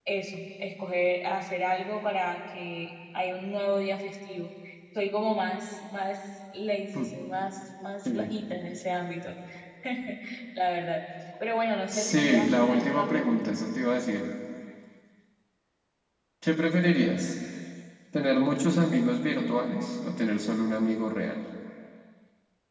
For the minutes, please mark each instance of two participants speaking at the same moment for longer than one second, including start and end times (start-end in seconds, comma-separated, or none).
11.9-13.5